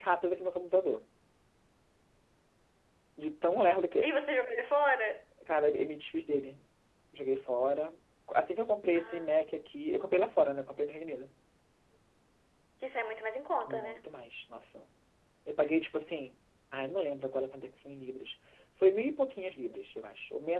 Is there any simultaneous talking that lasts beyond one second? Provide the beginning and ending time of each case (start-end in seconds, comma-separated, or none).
none